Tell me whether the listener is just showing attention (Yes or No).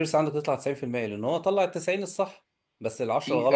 Yes